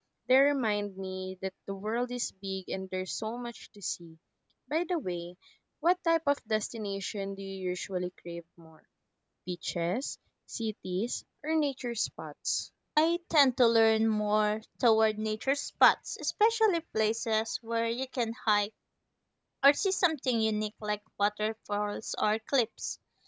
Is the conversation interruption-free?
Yes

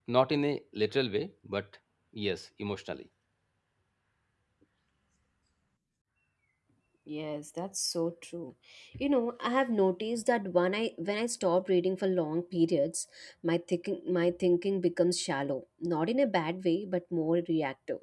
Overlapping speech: No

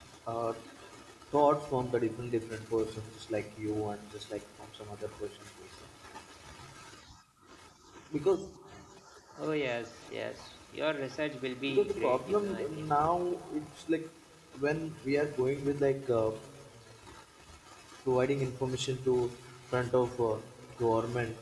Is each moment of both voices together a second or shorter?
No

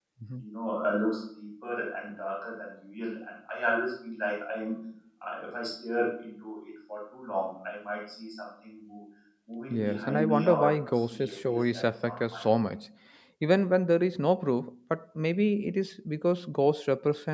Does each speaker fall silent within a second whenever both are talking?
No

